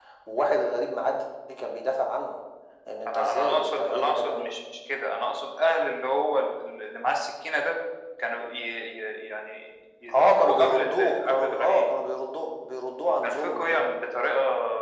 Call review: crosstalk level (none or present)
present